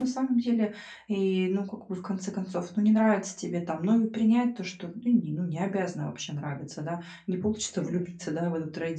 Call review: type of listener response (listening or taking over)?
listening